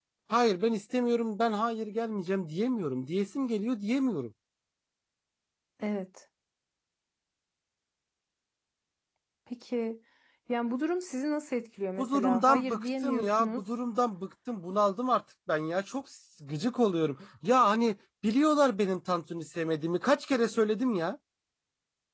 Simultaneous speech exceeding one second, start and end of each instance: 12.0-13.6

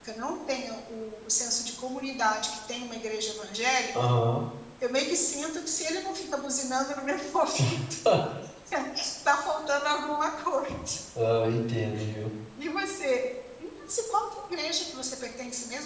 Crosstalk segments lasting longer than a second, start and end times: none

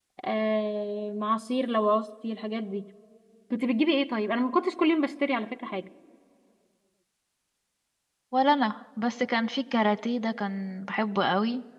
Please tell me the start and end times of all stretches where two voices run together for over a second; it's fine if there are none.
none

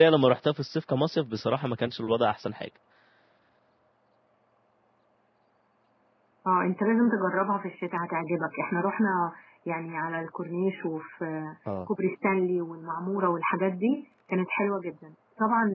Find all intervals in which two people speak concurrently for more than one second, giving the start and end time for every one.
none

